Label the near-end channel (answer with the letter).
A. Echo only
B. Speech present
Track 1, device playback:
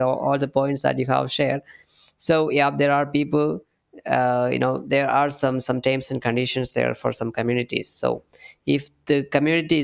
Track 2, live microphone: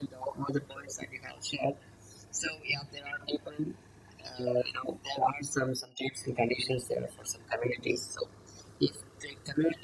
A